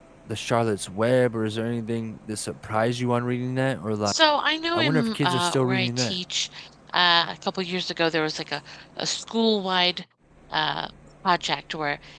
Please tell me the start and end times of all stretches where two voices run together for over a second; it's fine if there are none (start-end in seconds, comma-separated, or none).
4.7-6.2